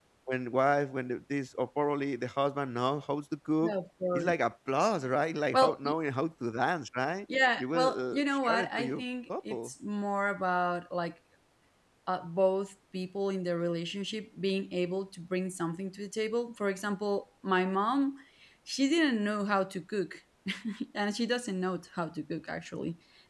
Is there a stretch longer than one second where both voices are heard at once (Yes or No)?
Yes